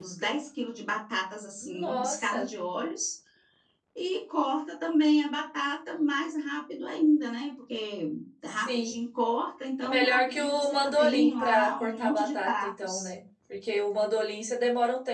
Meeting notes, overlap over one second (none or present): present